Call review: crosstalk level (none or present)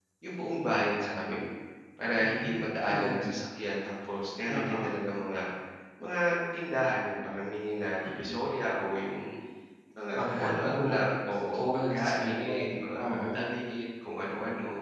present